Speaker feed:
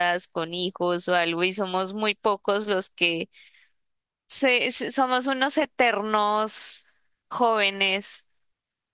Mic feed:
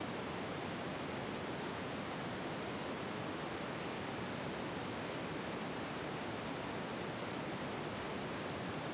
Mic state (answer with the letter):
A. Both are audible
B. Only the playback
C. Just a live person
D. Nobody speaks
D